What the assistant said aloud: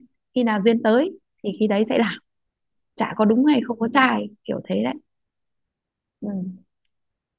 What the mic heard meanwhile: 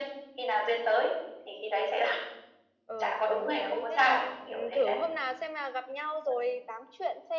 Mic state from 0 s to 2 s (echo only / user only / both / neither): echo only